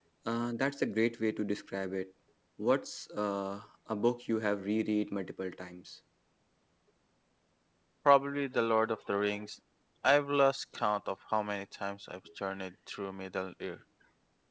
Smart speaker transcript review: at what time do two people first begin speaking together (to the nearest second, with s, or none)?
none